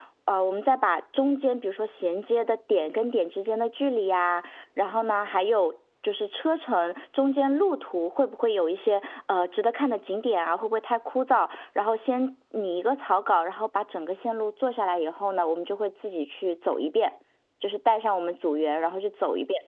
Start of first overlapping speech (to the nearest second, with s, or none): none